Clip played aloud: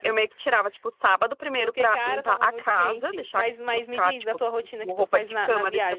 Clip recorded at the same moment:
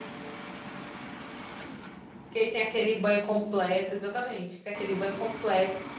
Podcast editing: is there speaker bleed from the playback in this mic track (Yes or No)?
No